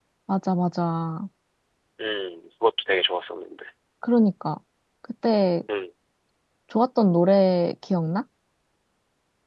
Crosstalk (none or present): none